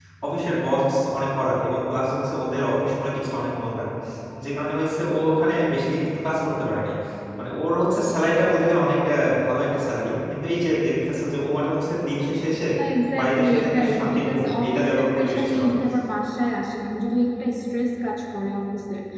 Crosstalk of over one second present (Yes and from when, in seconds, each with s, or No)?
Yes, from 13.2 s